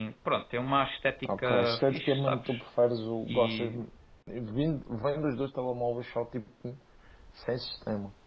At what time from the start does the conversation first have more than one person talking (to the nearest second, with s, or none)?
1 s